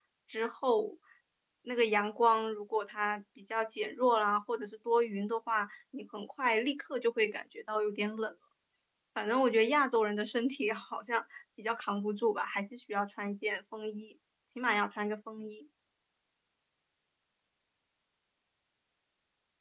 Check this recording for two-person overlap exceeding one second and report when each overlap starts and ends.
none

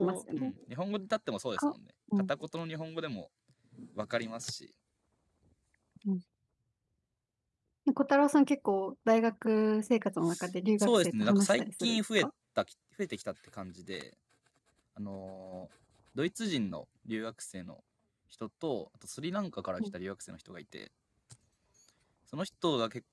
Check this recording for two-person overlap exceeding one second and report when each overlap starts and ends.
10.8-12.3

